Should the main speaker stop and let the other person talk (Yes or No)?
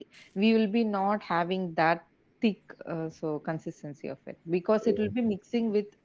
No